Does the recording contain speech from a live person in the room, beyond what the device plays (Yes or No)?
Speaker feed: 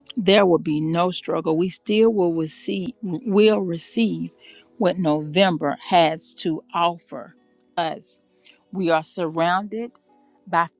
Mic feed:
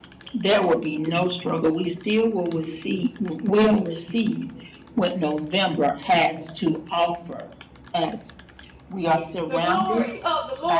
Yes